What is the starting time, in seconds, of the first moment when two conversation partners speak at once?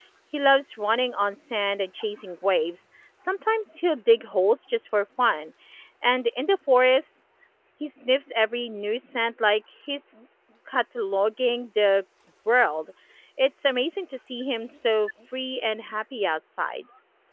none

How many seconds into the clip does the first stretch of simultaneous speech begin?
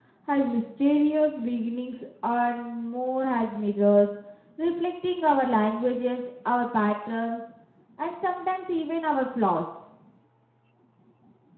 none

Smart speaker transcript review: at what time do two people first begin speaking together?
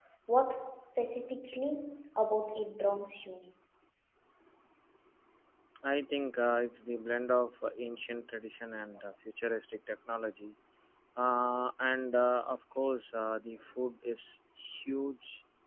none

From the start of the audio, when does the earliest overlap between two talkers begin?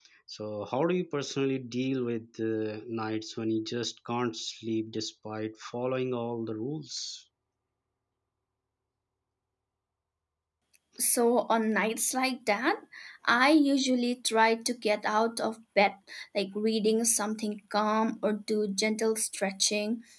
none

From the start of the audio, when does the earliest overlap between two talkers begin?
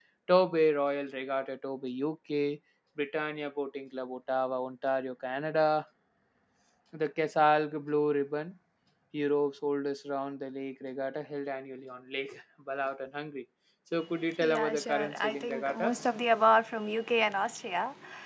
14.3 s

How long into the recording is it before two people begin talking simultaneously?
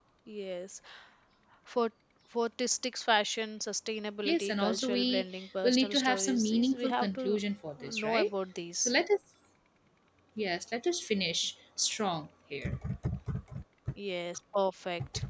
4.2 s

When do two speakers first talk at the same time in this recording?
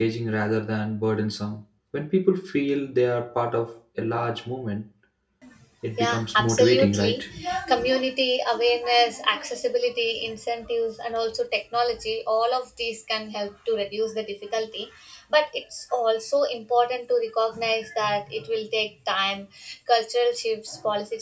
6.0 s

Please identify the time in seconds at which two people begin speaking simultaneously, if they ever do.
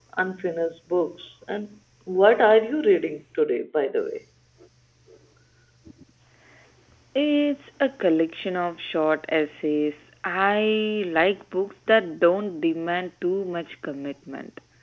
none

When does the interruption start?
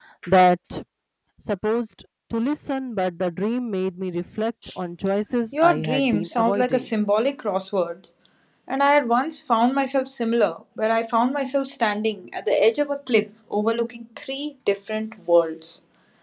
5.6 s

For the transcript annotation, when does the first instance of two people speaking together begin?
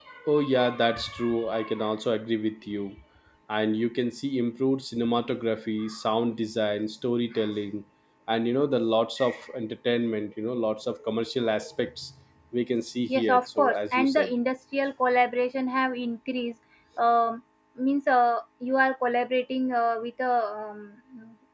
13.1 s

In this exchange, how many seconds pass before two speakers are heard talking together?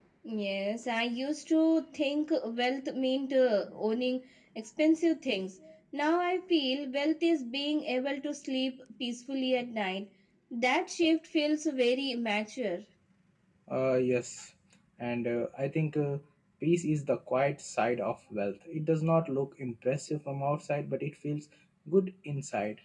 none

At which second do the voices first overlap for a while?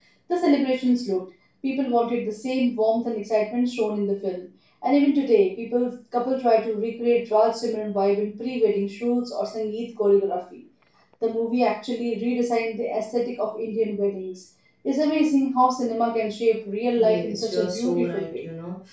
17.0 s

